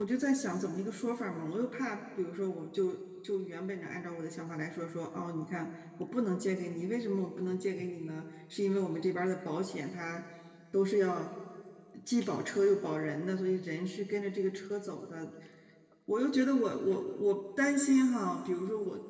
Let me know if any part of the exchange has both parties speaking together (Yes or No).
No